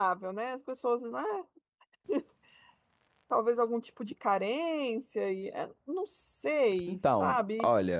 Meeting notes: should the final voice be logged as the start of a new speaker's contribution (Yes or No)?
Yes